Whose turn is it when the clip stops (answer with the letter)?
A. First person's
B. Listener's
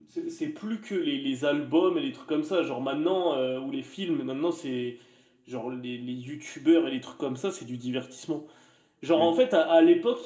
A